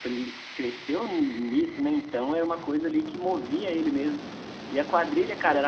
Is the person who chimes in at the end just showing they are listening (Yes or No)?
Yes